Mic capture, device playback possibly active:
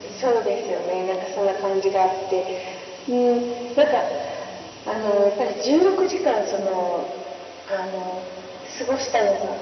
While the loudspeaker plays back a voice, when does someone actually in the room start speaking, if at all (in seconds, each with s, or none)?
none